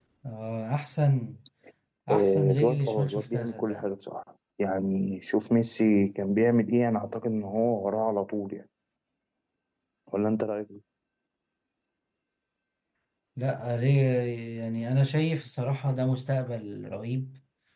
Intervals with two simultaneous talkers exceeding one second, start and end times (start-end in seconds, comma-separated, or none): 2.1-3.9